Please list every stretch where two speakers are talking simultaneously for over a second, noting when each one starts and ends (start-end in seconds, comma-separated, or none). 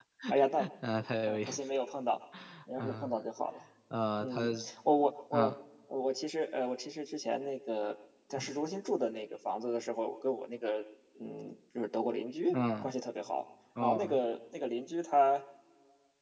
none